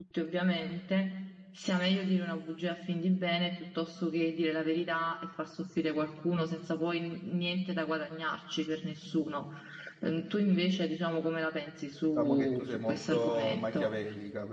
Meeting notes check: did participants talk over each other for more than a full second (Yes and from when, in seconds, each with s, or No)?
Yes, from 12.2 s